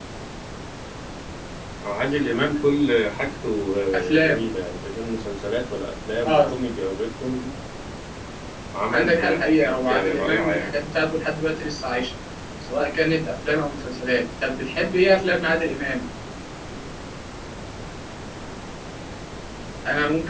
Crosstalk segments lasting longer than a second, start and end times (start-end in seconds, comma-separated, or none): 8.9-10.7